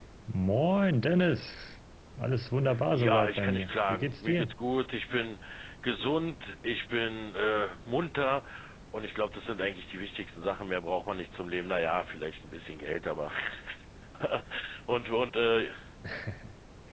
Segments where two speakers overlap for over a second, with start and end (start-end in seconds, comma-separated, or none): 2.9-4.5